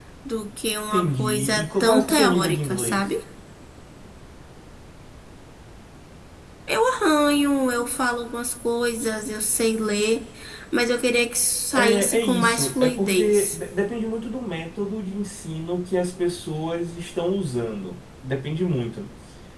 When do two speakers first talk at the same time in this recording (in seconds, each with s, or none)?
0.9 s